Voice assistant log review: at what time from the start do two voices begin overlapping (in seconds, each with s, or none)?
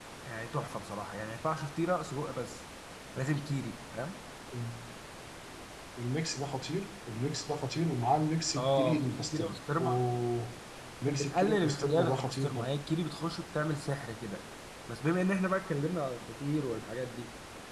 8.6 s